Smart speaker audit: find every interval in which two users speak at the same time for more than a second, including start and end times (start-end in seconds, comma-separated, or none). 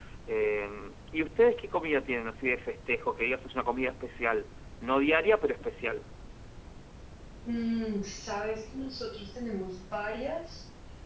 none